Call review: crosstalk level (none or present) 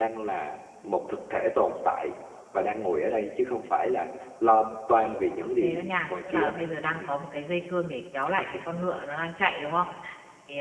present